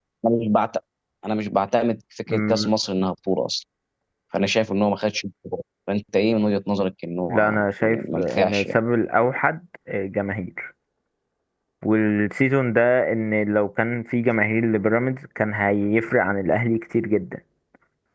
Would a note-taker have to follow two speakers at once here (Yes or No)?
Yes